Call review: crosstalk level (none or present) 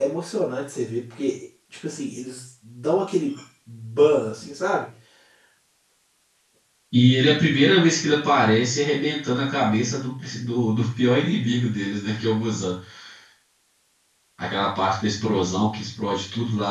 none